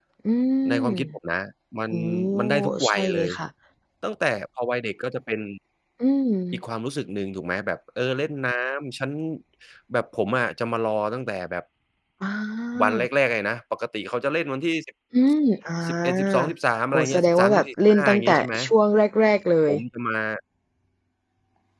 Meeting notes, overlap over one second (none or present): present